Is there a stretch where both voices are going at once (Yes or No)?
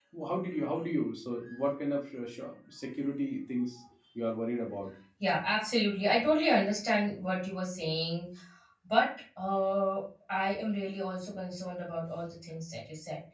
No